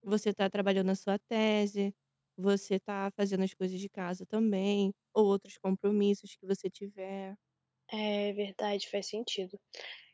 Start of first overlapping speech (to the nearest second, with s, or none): none